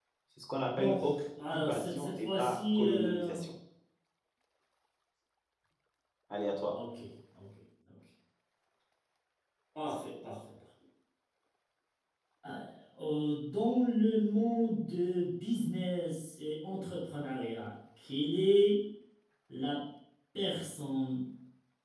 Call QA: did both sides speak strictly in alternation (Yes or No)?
No